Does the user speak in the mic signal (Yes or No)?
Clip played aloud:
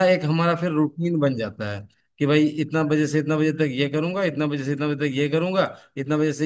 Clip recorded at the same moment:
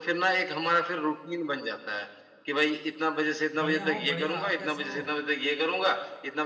Yes